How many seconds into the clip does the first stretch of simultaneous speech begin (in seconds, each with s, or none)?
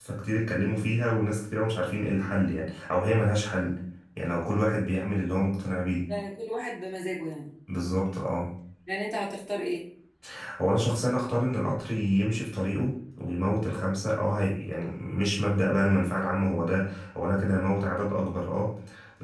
none